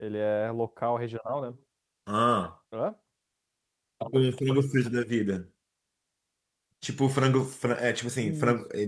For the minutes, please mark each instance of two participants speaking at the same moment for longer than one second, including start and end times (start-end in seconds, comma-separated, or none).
none